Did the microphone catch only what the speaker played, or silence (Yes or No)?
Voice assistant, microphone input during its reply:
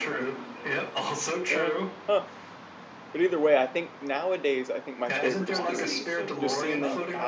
No